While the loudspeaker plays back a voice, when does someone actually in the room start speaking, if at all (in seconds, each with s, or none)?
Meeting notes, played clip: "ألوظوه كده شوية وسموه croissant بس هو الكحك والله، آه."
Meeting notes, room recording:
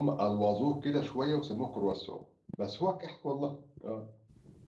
none